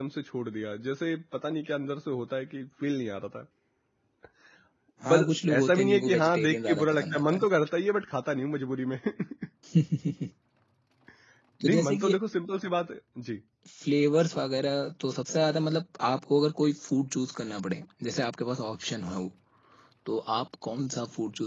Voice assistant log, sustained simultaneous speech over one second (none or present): present